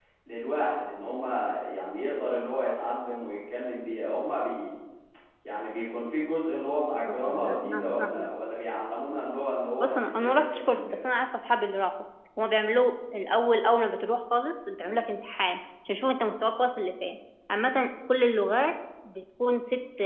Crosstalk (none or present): present